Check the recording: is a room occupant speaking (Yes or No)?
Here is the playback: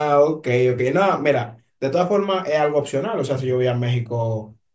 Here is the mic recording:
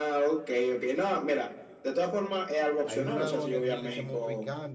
Yes